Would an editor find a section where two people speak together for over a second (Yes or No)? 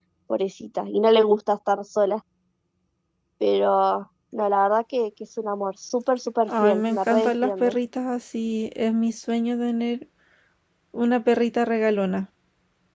Yes